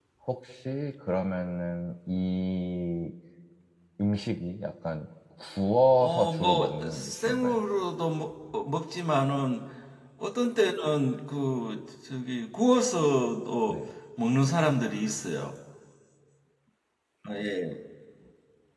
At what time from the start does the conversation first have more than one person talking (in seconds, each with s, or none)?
6.0 s